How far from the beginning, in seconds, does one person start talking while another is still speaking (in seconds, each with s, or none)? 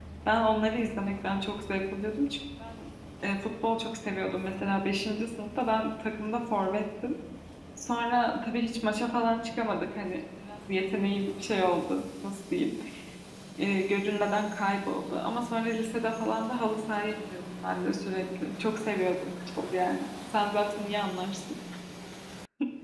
none